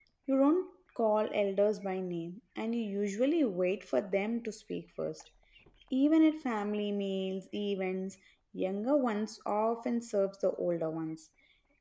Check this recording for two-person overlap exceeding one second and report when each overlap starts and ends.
none

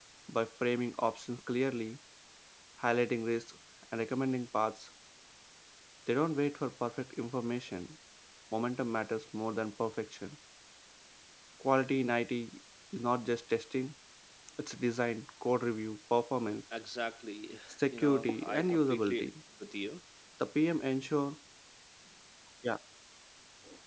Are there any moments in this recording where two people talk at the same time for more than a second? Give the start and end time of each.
17.9-19.3

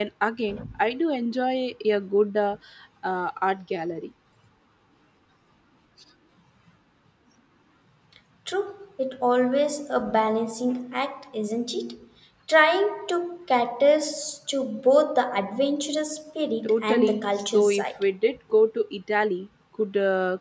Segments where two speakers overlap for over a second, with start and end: 16.6-18.0

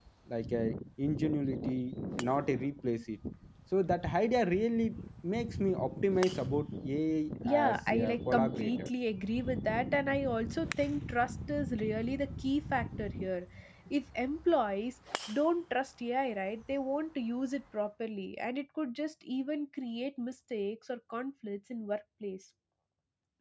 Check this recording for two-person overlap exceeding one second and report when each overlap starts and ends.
7.5-8.9

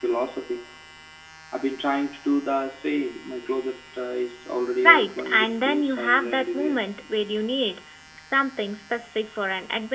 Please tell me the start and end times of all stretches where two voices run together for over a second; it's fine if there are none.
4.8-6.8

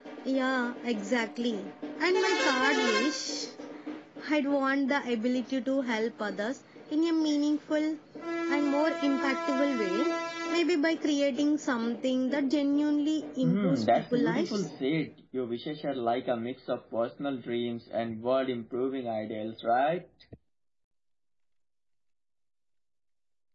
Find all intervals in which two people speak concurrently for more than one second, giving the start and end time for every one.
13.4-14.7

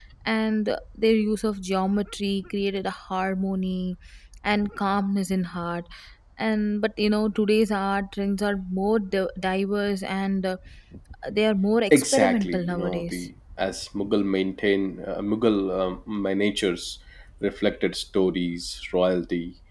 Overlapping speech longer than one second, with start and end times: 11.9-13.2

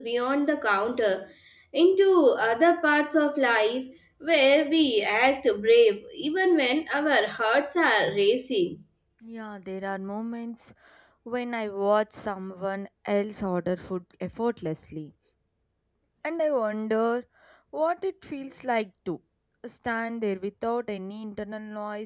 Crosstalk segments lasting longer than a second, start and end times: none

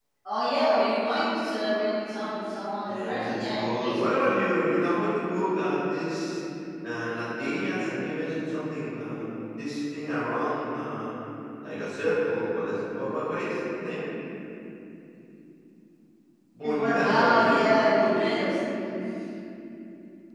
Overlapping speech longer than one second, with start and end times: 2.9-4.5, 16.6-18.4

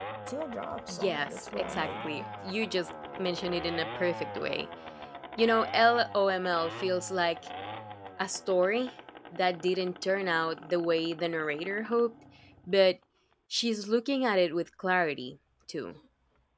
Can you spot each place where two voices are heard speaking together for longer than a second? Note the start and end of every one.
0.9-2.2

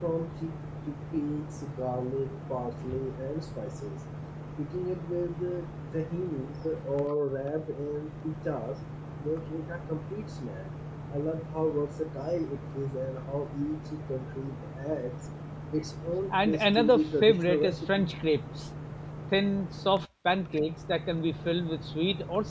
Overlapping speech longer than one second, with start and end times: 16.3-18.1

